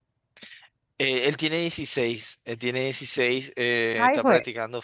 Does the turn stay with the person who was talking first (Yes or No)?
Yes